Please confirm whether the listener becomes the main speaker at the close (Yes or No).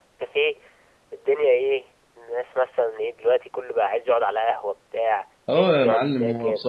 Yes